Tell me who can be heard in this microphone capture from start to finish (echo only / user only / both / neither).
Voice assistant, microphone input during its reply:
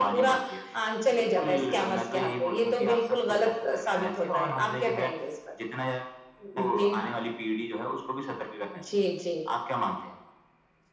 both